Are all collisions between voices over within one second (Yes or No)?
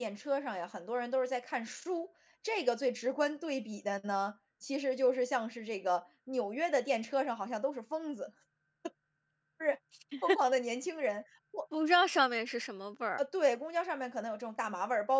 Yes